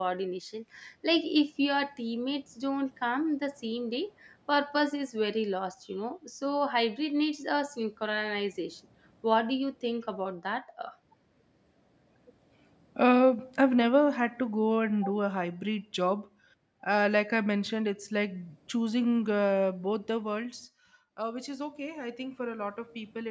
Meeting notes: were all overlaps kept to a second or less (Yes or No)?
Yes